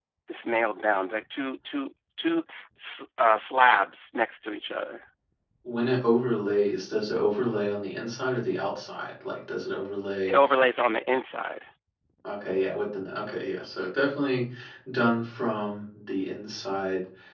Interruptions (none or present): none